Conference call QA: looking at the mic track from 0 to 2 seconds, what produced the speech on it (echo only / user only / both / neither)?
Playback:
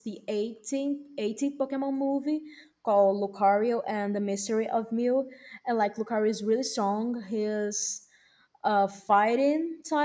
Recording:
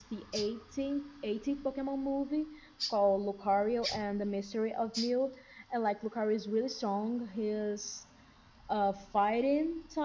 echo only